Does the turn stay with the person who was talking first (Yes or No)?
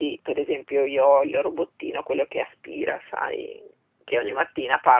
Yes